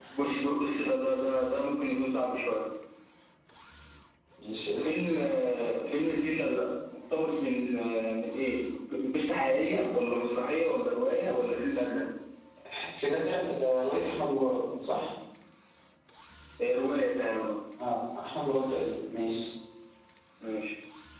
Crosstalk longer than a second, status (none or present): none